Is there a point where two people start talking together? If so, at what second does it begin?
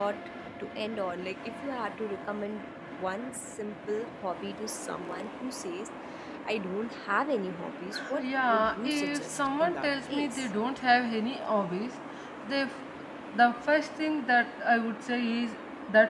7.9 s

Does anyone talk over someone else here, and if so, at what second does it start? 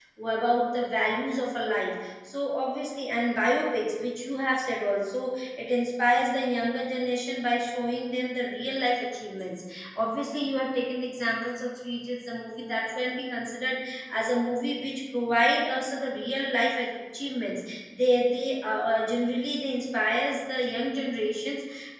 none

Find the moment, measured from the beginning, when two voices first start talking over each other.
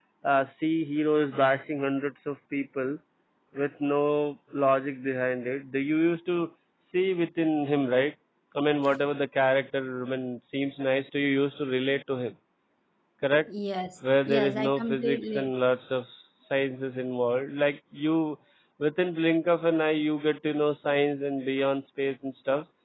14.3 s

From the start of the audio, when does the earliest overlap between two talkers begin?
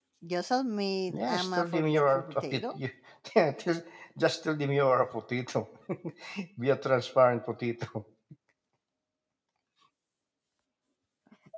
1.1 s

